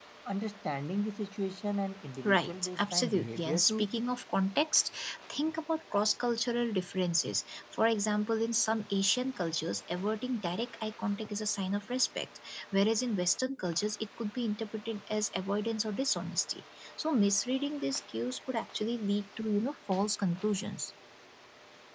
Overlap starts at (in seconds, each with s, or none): 2.2 s